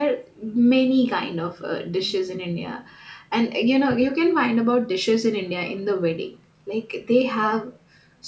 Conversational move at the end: listening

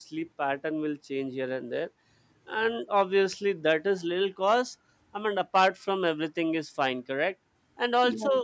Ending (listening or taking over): listening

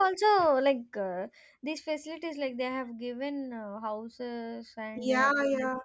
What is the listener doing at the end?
taking over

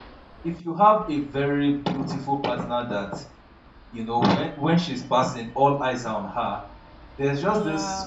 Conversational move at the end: listening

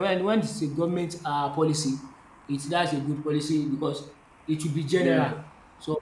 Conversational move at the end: listening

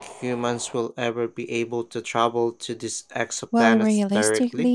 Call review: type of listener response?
taking over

